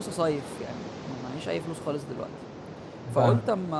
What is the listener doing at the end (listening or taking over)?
listening